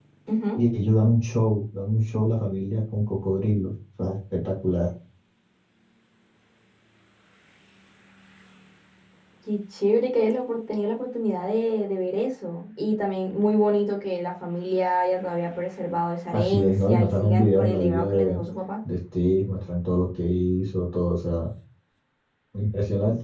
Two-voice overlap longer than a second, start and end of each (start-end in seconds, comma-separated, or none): 16.3-18.4